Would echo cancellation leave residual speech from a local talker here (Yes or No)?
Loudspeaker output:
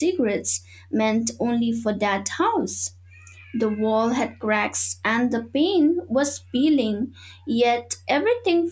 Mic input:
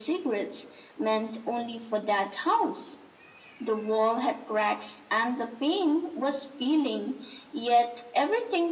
No